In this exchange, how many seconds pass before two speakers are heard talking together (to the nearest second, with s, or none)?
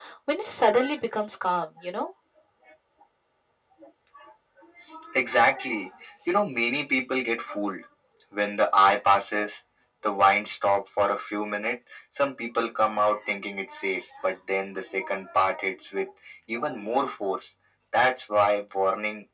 none